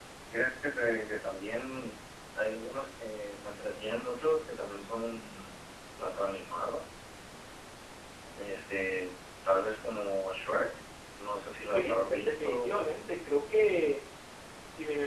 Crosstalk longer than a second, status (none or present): present